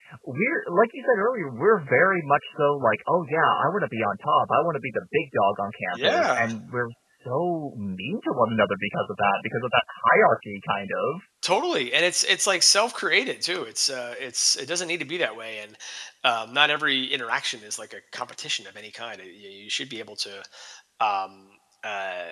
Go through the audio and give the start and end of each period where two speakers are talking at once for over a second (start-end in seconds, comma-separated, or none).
none